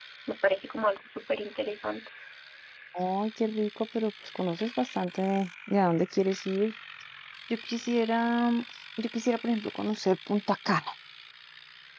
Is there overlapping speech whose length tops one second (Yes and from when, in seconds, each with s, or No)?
No